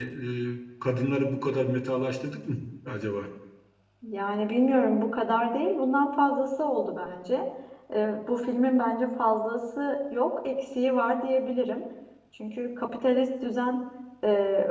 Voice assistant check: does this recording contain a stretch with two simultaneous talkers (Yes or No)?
No